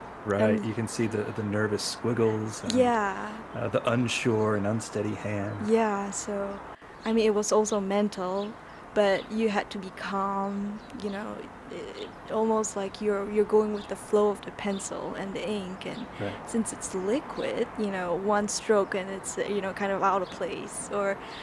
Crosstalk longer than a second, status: none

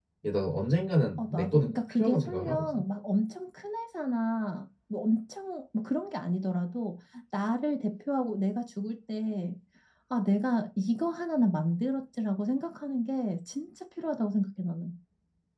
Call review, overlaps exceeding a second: present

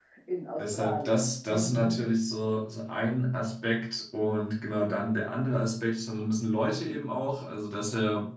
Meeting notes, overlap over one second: present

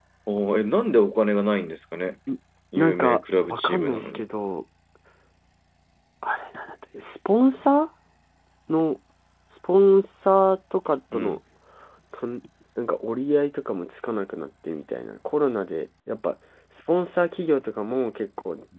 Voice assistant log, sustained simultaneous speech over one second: present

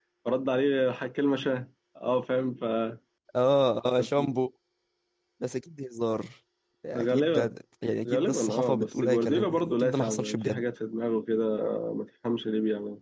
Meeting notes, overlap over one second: present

